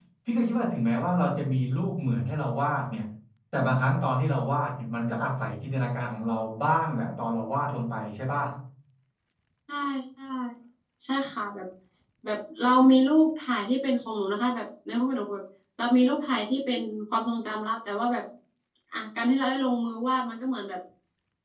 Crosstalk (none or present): none